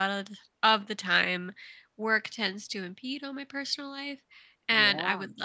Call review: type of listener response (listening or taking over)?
listening